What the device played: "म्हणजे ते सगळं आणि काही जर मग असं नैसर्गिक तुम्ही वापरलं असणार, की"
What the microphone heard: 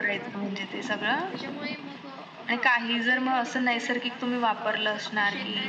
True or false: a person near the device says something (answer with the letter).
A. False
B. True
B